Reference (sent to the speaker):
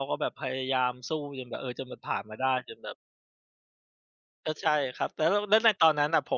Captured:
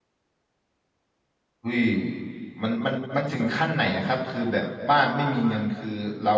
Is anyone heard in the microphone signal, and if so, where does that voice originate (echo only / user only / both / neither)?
user only